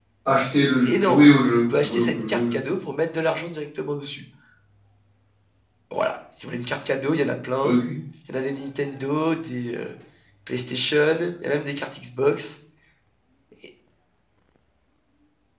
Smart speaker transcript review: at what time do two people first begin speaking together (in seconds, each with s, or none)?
0.8 s